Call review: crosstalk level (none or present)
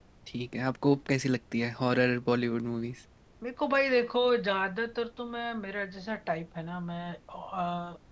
none